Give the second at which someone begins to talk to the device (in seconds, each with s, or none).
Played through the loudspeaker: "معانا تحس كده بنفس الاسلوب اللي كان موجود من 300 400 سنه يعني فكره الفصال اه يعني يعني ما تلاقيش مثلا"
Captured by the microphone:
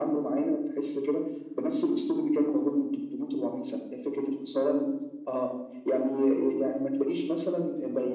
none